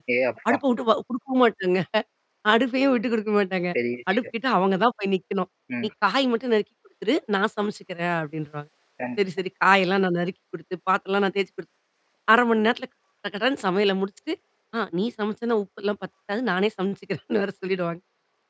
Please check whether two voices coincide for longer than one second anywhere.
No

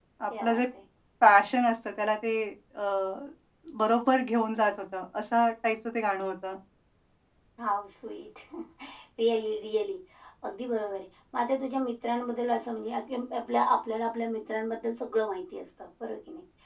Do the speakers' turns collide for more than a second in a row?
No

